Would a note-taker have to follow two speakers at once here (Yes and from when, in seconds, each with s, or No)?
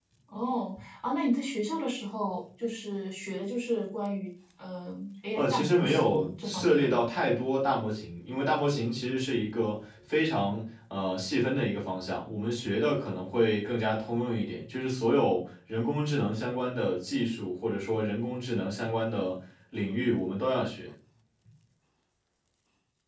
Yes, from 5.4 s